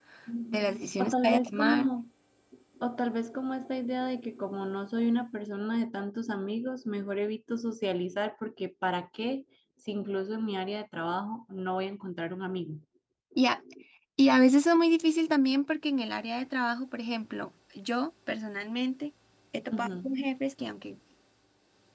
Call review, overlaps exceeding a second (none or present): present